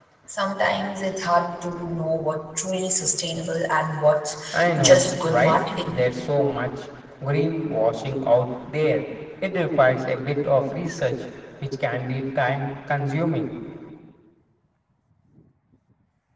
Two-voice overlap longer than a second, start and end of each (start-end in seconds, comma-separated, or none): 4.8-6.0